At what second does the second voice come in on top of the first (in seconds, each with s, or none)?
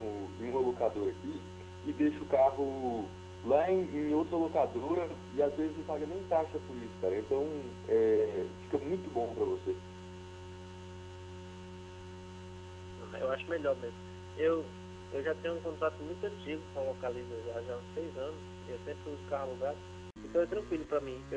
none